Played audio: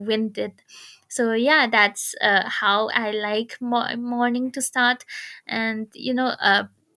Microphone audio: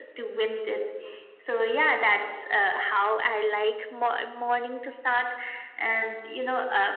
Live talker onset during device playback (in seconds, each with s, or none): none